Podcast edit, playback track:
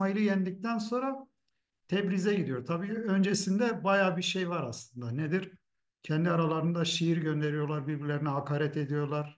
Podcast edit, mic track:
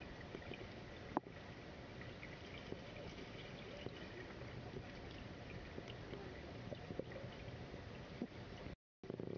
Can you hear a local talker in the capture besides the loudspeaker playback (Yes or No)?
No